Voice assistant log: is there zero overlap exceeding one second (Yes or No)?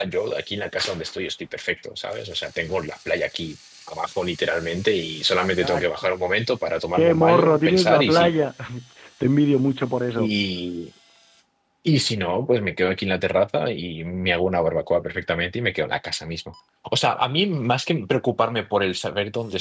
No